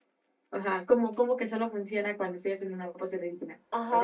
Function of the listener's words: taking over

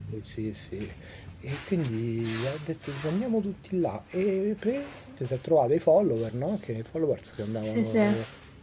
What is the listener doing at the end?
listening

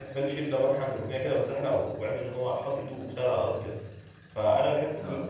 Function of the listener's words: listening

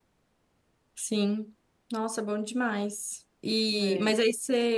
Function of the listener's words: listening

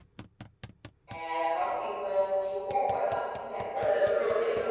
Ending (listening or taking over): taking over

